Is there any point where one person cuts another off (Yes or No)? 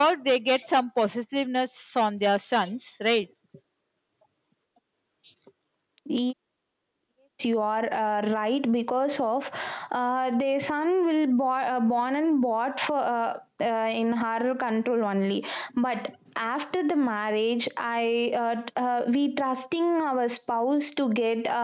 No